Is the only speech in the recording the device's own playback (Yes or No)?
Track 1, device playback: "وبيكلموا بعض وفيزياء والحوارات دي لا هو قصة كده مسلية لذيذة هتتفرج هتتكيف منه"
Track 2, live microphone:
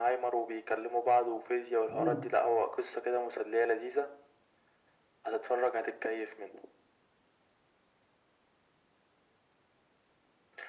No